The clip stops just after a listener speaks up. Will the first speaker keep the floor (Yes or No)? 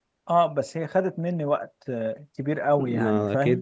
No